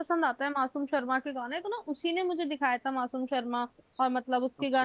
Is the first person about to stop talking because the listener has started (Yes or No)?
No